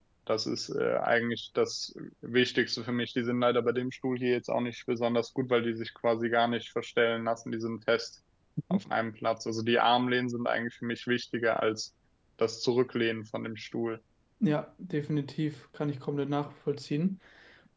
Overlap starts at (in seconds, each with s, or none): none